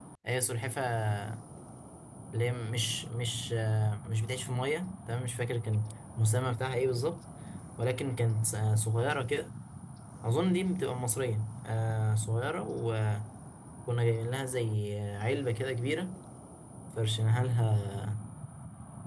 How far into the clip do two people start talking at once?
none

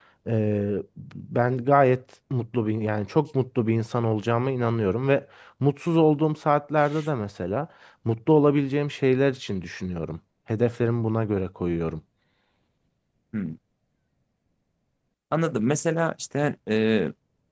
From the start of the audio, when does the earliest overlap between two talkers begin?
none

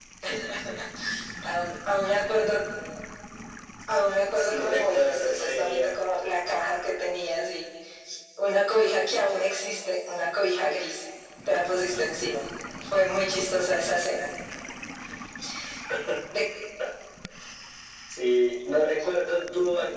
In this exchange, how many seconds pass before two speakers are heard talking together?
4.3 s

